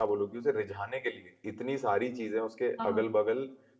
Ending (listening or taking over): listening